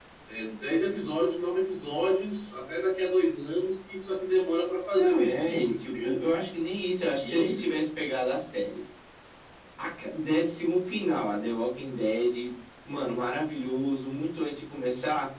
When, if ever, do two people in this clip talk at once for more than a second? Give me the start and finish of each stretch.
5.0-6.2

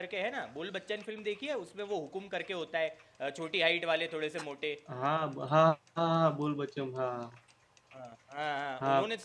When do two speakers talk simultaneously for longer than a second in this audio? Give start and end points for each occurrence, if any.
none

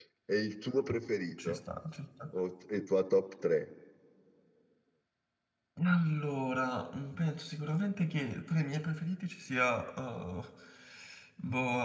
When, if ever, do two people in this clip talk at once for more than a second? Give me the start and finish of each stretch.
none

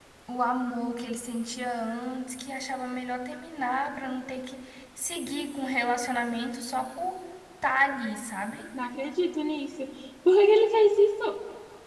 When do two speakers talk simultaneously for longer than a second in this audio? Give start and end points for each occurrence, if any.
none

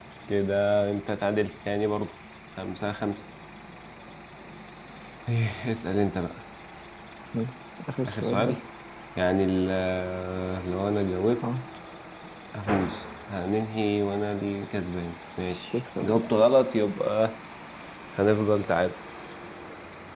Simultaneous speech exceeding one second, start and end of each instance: none

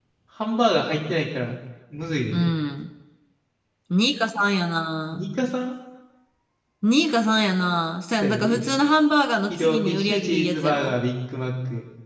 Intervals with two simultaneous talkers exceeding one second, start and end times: 9.5-10.9

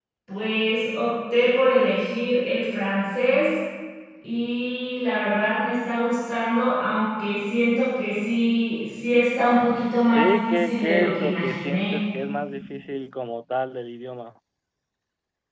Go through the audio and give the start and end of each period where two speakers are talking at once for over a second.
10.1-12.0

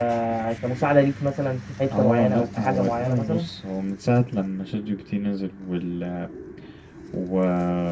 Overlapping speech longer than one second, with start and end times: 2.0-3.5

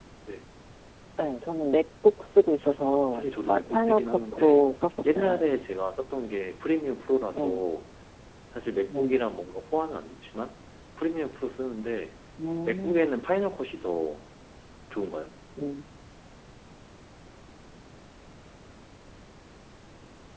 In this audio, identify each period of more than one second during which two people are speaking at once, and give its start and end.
2.8-4.7

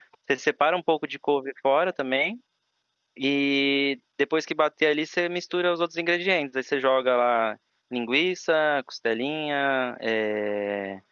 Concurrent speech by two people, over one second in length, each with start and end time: none

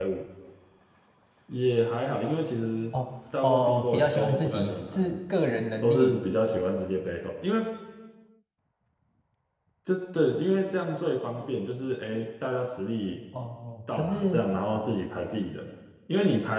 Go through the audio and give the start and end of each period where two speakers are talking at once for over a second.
3.4-5.2

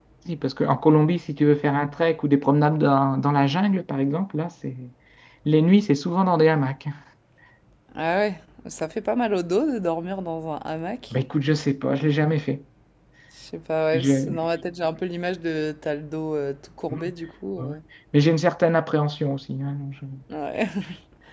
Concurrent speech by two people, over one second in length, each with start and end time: none

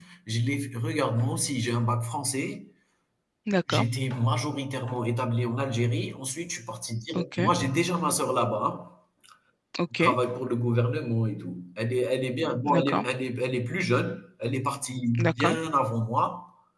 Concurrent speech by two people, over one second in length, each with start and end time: none

